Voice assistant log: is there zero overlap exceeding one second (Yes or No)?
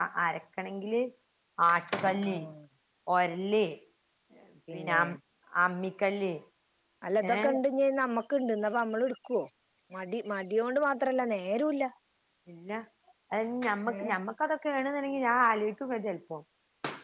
Yes